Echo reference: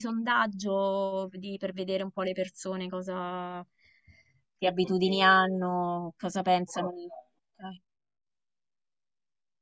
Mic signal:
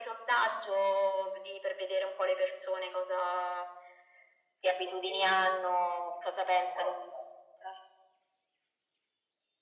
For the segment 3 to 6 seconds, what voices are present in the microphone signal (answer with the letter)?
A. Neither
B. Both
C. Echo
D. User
C